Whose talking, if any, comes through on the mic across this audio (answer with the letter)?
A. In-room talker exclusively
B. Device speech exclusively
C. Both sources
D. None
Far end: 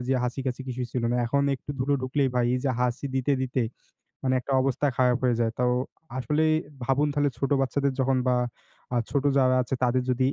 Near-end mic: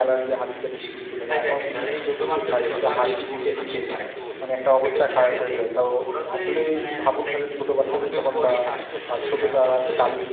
C